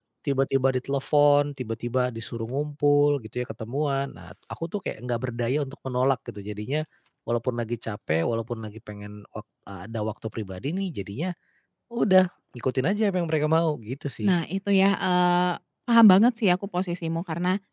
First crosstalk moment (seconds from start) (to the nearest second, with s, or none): none